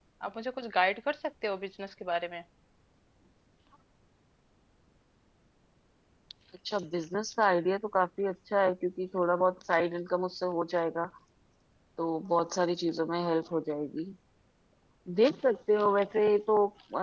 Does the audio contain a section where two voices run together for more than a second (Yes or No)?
No